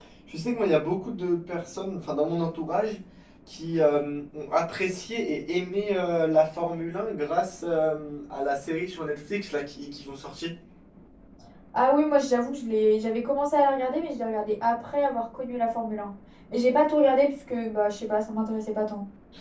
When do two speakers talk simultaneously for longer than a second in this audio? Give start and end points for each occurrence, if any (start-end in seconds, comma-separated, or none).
none